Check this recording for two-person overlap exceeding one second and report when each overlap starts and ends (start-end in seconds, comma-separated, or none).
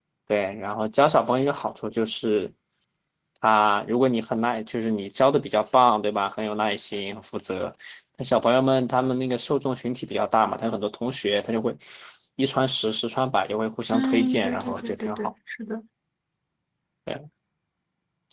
13.9-15.3